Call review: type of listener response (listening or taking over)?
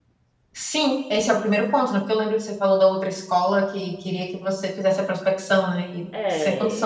taking over